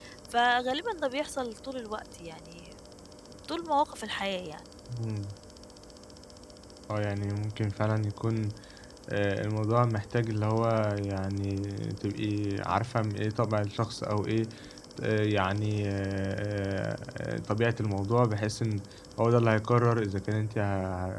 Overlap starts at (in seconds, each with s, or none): none